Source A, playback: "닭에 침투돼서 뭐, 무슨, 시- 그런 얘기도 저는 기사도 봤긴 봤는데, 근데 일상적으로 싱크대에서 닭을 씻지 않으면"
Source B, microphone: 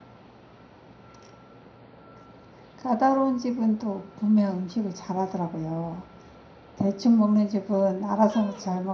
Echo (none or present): none